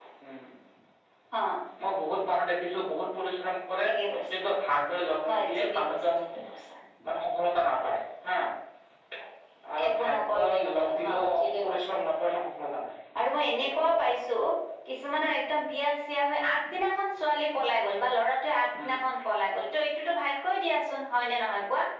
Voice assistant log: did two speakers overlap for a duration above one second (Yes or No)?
Yes